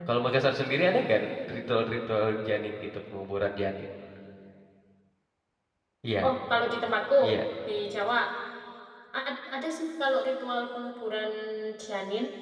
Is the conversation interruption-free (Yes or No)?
Yes